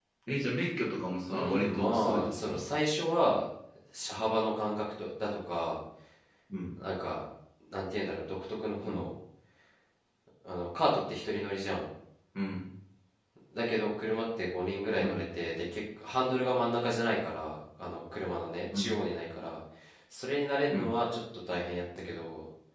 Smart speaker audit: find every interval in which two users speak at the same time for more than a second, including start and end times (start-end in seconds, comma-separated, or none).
1.3-2.6